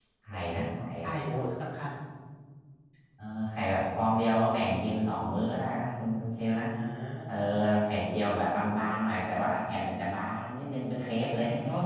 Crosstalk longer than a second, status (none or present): none